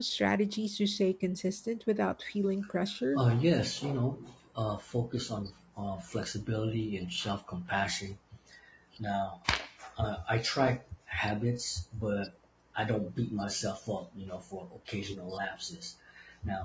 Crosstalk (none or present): none